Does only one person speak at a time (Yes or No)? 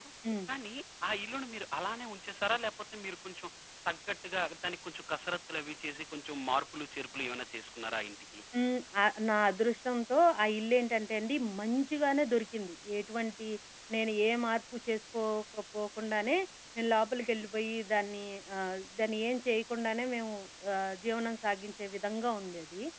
Yes